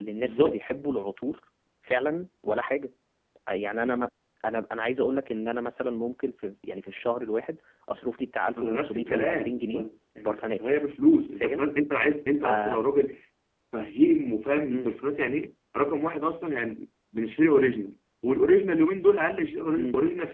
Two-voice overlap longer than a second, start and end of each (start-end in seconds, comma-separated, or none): 8.6-9.8